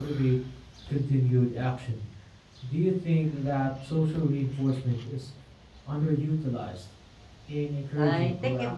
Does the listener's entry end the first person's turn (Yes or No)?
Yes